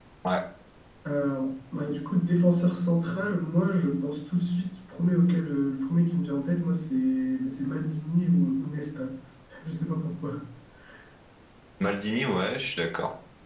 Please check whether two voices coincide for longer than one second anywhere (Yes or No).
No